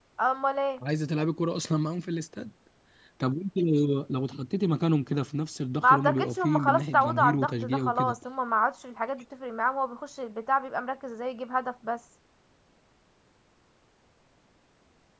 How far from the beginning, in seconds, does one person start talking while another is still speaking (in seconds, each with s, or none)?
5.8 s